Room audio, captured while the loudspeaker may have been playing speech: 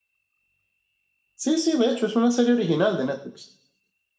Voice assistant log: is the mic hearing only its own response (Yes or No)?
No